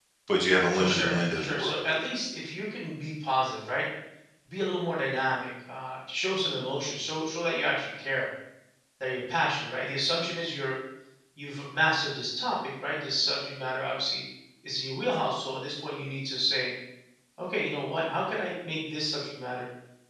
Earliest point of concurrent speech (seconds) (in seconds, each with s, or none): 0.7 s